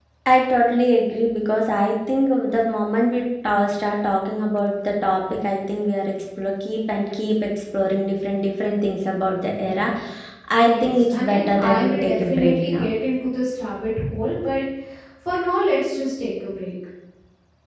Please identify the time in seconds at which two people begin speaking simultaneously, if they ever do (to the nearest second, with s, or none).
11 s